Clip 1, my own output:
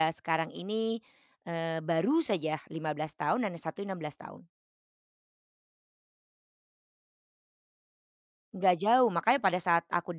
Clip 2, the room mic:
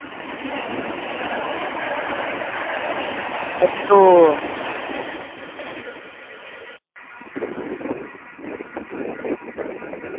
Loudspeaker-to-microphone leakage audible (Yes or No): No